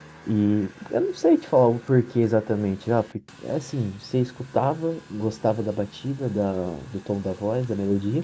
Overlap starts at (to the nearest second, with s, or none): none